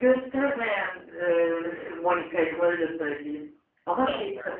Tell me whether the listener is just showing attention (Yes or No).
Yes